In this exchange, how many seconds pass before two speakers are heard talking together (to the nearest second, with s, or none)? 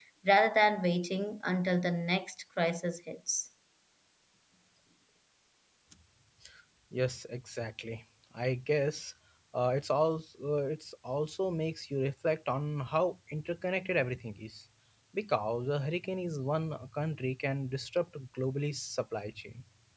none